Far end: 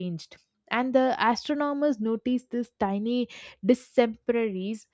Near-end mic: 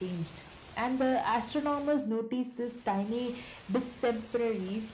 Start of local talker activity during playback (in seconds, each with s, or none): none